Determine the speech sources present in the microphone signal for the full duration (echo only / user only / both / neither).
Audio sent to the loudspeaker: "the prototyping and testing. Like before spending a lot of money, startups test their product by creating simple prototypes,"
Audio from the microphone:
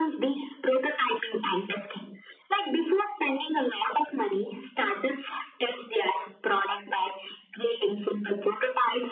echo only